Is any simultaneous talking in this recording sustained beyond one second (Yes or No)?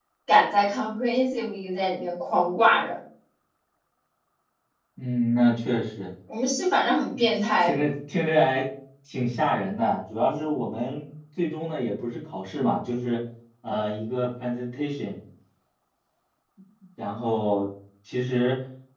No